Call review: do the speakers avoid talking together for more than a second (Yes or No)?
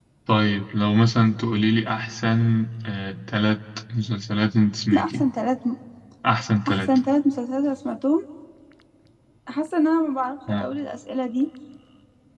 Yes